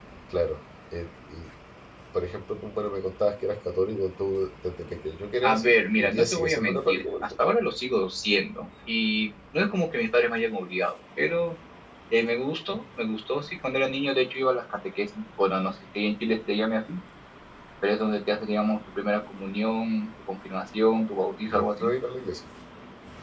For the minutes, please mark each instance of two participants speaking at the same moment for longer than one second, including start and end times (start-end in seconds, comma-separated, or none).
5.4-7.2